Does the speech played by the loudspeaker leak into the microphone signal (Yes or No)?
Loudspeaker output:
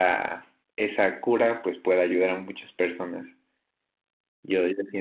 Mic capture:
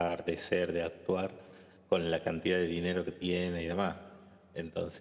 No